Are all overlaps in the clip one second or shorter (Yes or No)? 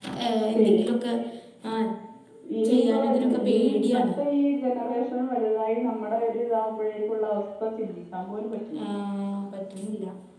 No